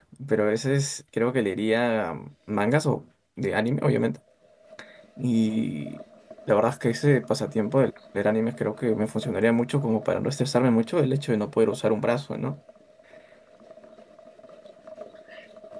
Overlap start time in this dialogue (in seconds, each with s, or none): none